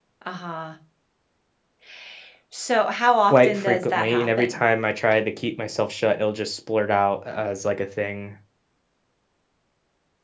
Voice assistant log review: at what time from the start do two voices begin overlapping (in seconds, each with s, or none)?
3.3 s